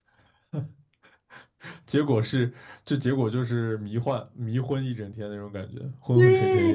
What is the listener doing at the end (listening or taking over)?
taking over